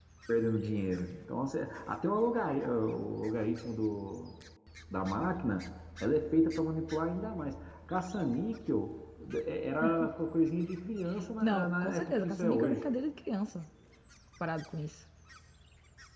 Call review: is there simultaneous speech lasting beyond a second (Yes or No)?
Yes